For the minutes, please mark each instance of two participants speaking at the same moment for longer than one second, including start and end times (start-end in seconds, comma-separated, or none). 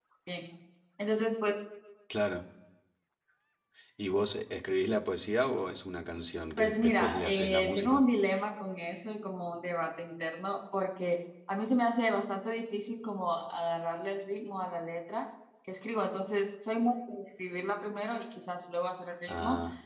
6.6-8.0